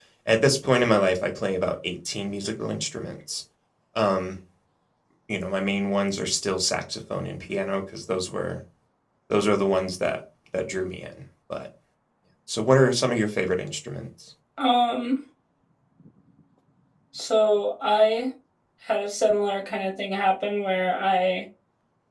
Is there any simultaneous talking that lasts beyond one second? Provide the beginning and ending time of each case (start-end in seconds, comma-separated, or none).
none